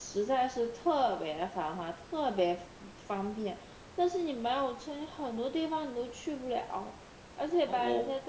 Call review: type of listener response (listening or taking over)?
listening